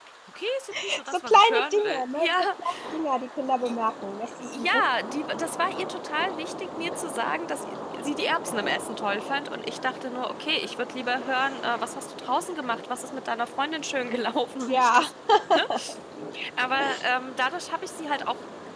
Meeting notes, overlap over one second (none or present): present